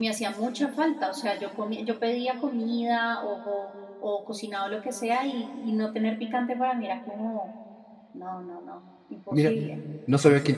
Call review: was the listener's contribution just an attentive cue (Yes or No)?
No